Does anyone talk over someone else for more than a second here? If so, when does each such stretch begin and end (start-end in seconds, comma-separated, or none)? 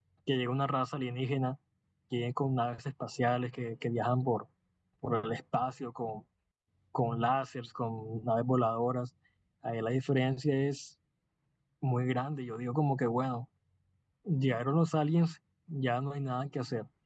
none